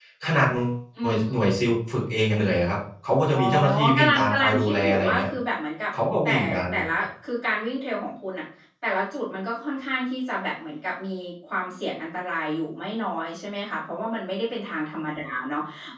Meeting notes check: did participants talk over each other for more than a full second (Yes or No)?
Yes